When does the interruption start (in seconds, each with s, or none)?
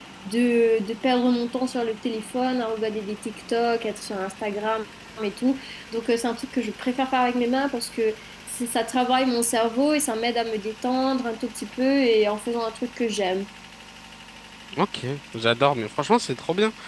none